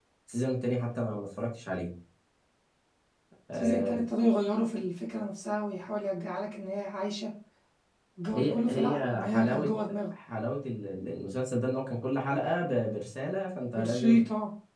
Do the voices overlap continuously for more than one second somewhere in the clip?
Yes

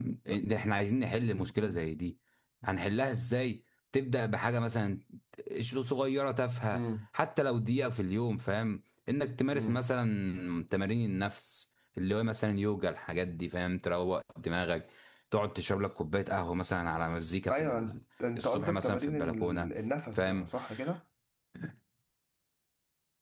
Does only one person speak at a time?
No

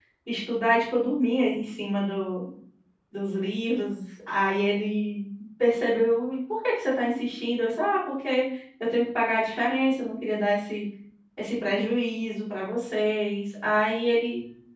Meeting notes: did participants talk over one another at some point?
No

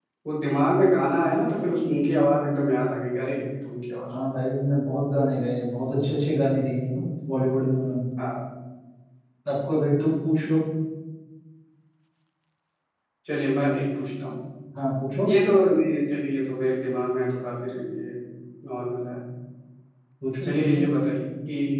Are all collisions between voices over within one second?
Yes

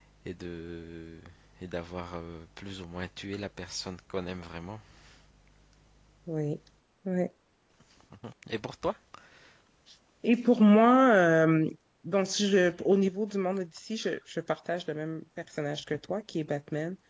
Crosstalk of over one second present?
No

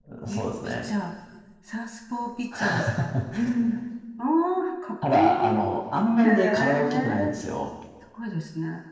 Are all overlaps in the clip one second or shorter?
No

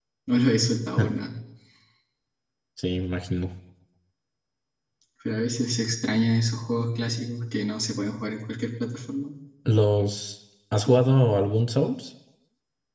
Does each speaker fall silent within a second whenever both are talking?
Yes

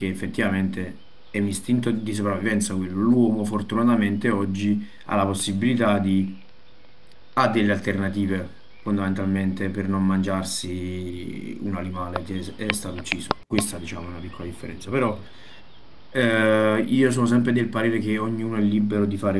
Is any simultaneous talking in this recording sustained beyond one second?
No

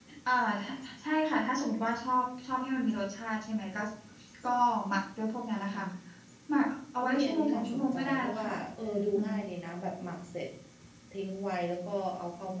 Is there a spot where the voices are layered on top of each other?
Yes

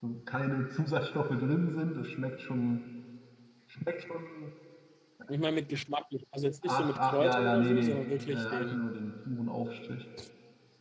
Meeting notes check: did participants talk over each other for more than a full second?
Yes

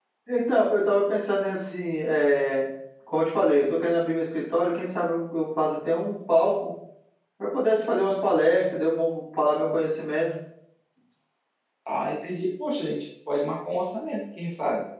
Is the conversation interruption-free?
Yes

